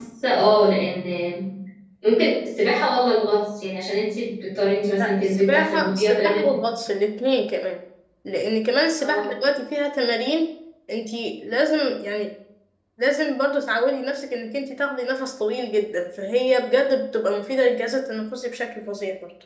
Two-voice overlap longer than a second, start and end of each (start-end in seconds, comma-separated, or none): 5.0-6.5